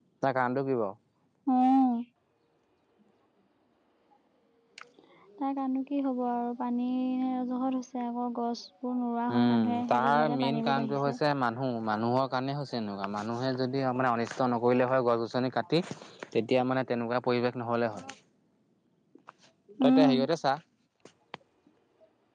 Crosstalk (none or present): present